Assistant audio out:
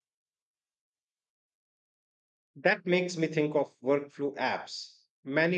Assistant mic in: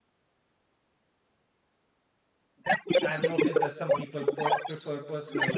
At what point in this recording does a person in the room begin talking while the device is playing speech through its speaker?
3.0 s

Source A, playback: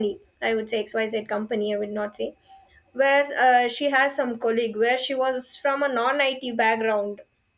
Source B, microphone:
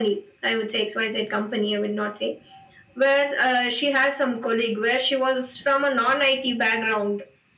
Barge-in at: none

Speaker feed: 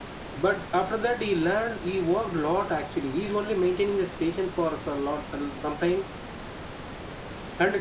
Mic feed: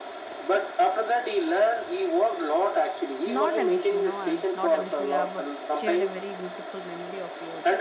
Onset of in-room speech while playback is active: 3.2 s

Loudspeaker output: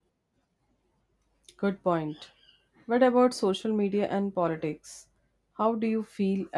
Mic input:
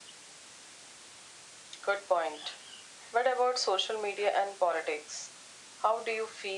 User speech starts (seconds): none

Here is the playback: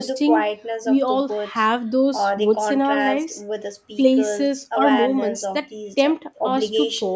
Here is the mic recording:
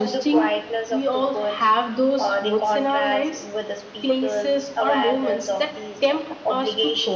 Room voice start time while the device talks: none

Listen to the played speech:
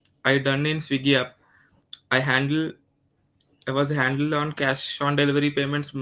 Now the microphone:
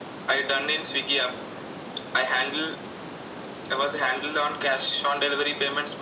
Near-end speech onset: none

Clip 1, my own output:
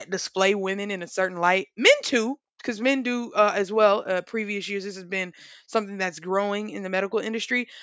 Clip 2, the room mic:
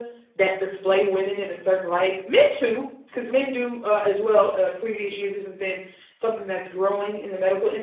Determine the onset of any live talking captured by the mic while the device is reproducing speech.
none

